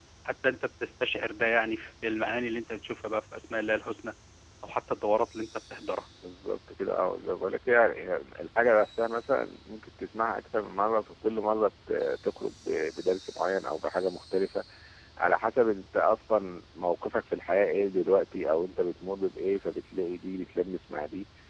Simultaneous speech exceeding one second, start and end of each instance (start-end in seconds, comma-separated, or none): none